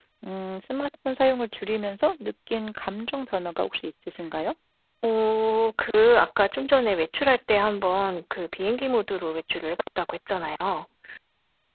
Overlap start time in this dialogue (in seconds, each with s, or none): none